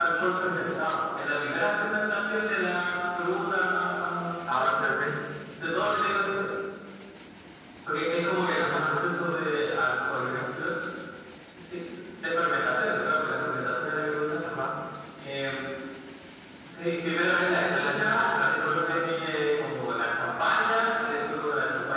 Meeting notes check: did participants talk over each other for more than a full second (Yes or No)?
Yes